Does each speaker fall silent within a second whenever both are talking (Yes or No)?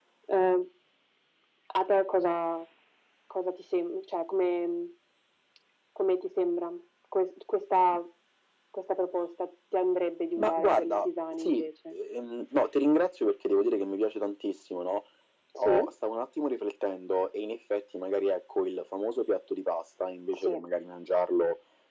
No